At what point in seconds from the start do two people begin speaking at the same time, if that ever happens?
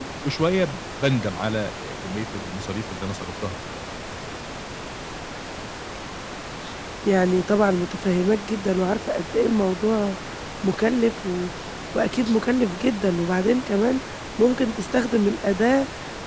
none

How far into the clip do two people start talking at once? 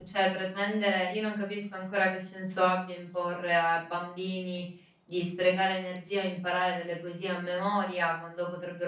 none

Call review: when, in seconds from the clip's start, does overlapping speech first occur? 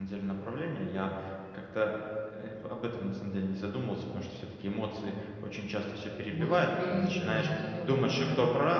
6 s

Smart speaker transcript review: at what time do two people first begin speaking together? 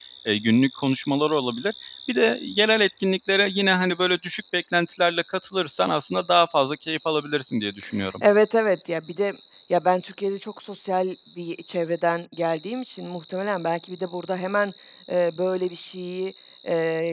none

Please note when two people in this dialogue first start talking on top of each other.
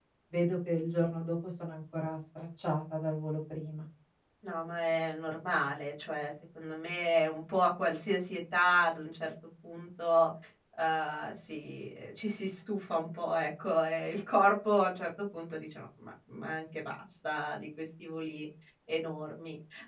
none

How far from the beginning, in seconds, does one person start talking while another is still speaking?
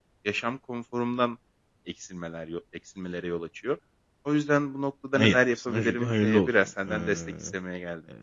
5 s

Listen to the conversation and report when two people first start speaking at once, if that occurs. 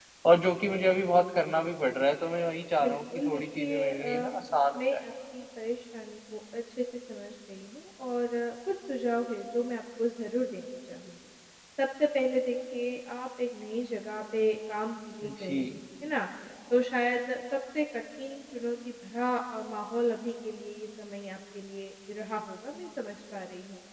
3 s

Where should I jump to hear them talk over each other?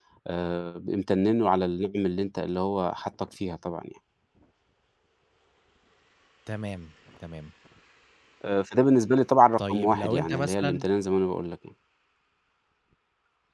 10 s

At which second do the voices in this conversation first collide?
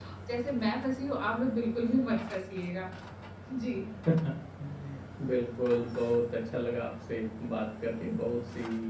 none

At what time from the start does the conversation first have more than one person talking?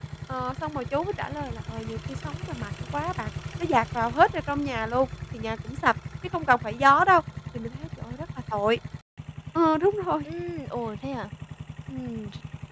none

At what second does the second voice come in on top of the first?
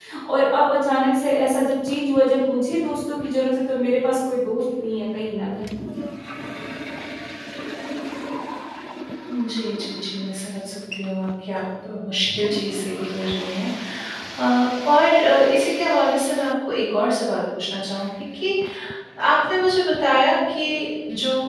none

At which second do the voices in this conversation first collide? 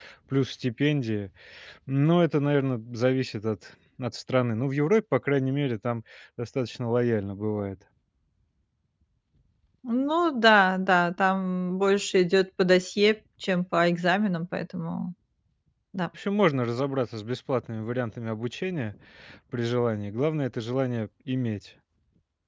none

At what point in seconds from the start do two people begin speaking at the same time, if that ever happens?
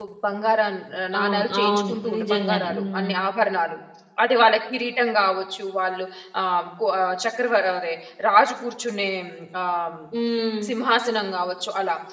1 s

